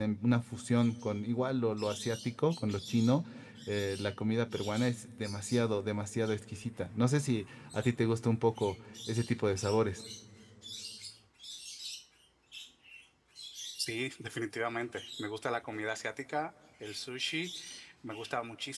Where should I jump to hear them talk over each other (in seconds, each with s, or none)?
none